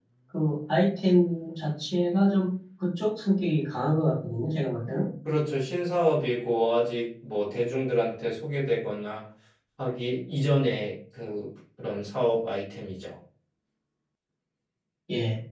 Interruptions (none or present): none